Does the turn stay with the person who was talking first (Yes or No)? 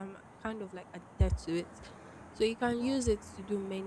Yes